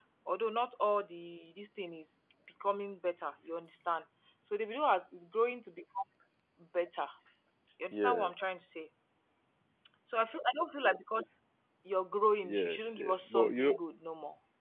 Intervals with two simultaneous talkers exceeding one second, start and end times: 12.4-13.8

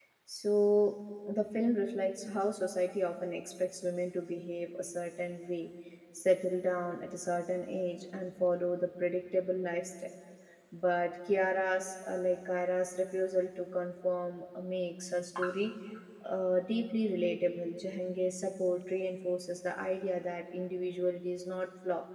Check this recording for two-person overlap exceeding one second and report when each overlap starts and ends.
none

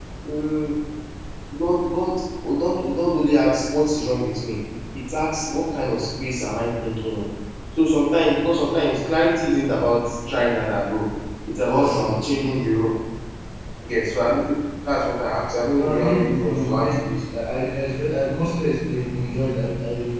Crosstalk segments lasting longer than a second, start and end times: 15.8-17.0

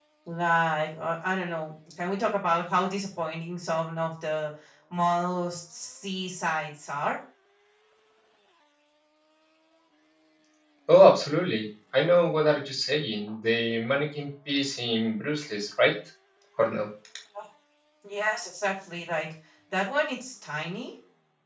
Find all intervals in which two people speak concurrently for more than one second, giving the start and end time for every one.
none

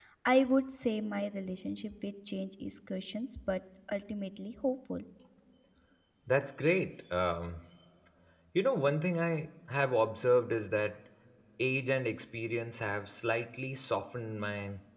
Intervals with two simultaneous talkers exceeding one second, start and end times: none

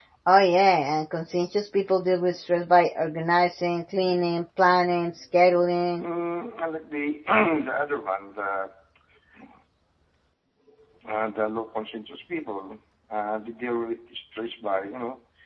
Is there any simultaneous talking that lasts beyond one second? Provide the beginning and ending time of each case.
none

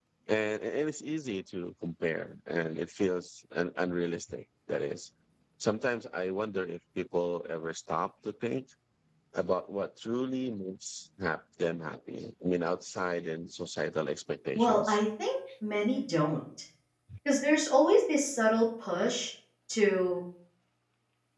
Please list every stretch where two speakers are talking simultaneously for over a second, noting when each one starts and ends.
none

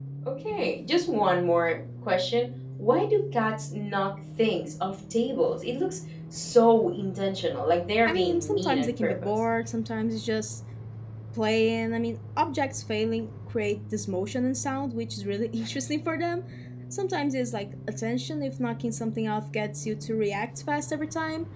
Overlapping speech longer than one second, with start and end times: 8.1-9.3

